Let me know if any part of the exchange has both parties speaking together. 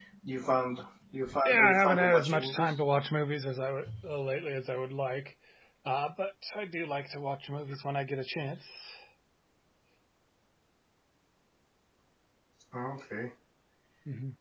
Yes, from 1.4 s

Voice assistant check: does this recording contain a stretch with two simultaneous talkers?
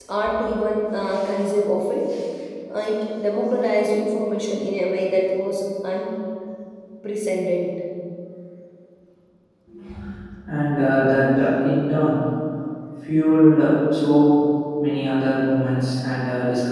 No

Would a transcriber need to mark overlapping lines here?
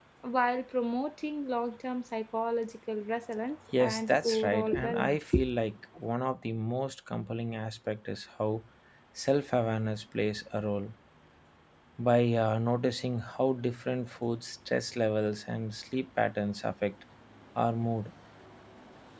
Yes, from 3.7 s

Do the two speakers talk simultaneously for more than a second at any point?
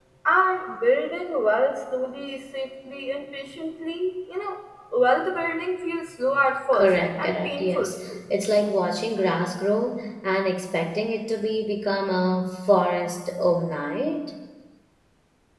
Yes, from 6.7 s

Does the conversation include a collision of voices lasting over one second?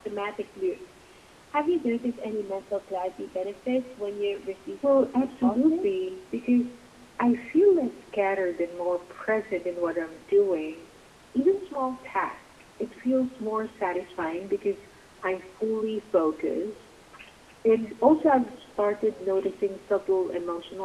Yes, from 4.8 s

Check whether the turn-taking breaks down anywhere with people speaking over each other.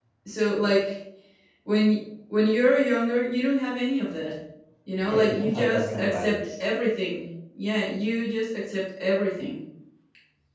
Yes, from 5.0 s

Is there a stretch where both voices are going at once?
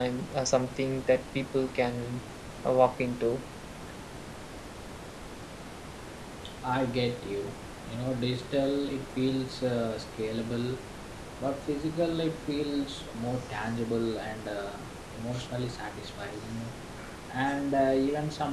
No

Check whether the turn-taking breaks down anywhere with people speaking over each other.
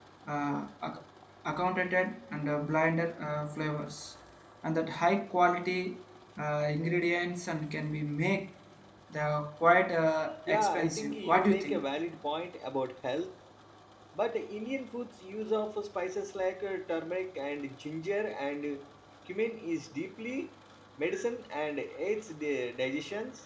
Yes, from 10.5 s

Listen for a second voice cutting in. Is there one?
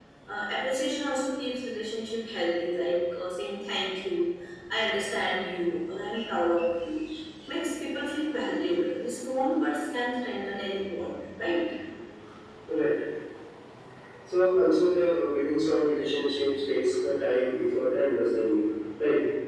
No

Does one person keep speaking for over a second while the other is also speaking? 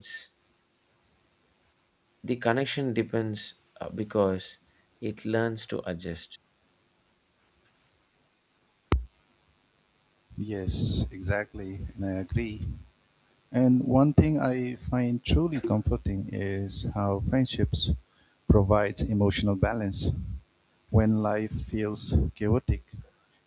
No

